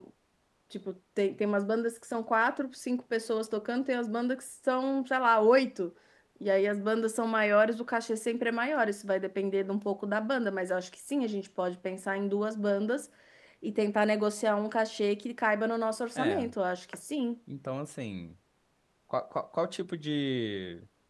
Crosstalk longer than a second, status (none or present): none